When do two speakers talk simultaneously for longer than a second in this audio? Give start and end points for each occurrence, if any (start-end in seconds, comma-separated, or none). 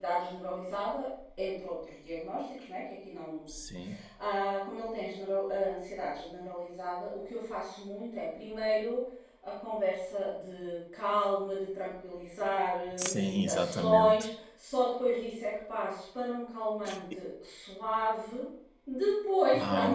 13.0-14.3